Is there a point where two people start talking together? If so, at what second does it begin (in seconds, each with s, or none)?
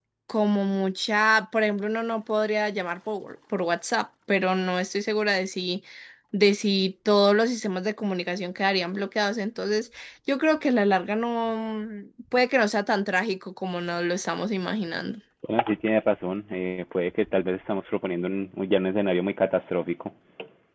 none